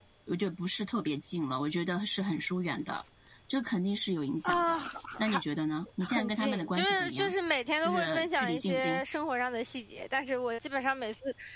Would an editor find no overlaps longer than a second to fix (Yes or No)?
No